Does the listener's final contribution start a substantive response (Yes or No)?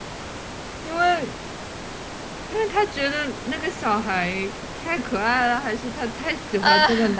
No